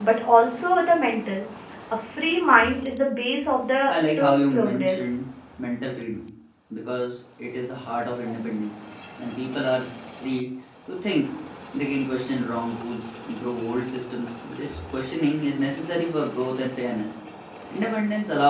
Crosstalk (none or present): present